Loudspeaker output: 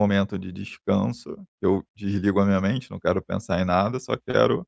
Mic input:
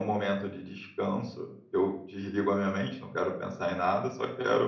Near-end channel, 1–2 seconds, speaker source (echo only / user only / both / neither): echo only